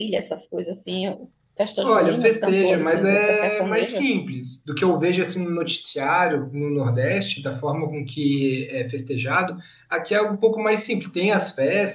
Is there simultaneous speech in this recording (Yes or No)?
Yes